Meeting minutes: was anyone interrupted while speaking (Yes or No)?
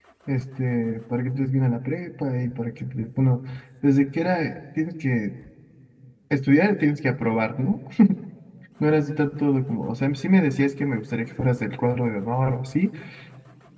No